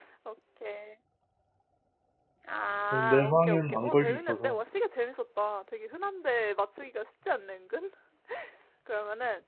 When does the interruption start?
3 s

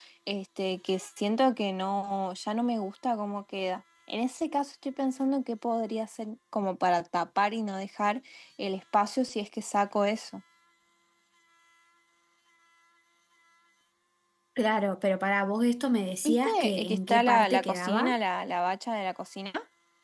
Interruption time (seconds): 16 s

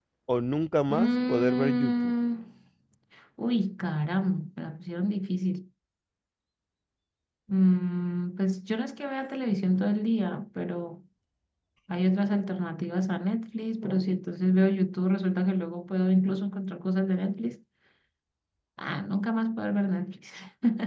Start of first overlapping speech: 1 s

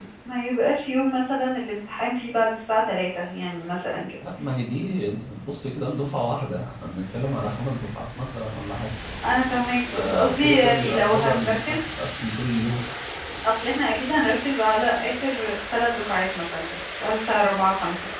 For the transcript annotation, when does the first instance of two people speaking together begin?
10 s

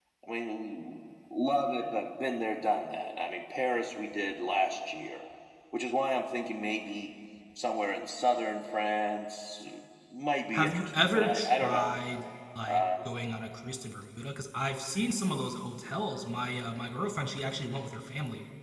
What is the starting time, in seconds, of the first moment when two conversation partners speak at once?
11 s

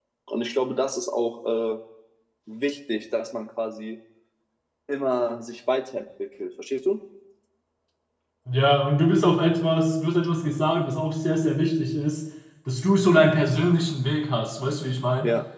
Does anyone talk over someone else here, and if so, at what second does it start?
none

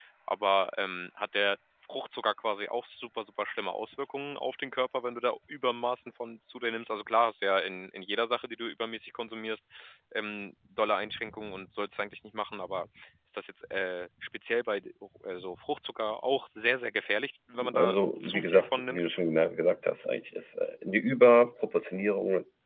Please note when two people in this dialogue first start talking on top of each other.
18 s

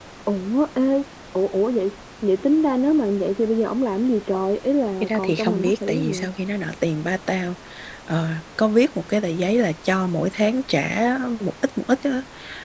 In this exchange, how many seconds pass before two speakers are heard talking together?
5 s

